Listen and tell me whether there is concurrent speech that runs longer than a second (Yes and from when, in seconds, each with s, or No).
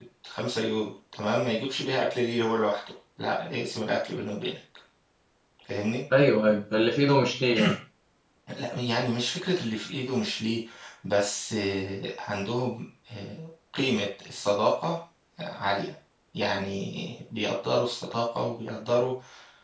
No